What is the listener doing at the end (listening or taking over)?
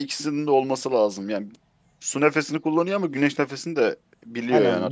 taking over